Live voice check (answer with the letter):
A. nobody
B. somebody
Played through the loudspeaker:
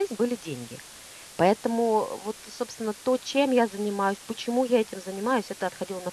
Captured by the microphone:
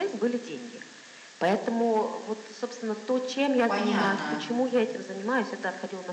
B